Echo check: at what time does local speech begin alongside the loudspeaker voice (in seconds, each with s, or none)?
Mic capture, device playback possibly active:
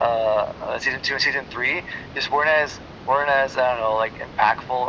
none